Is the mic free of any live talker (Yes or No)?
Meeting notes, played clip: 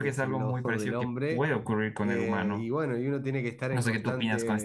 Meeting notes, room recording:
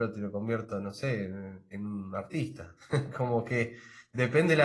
No